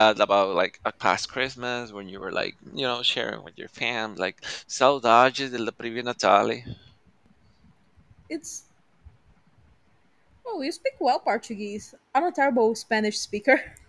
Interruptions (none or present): none